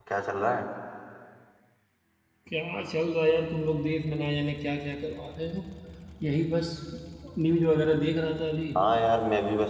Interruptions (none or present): none